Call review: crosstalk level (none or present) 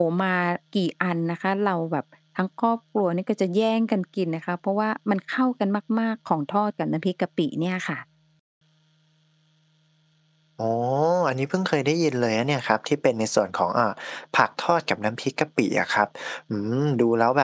none